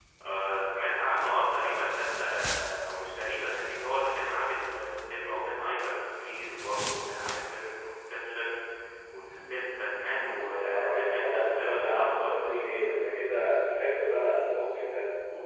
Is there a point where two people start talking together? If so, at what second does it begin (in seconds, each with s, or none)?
10.6 s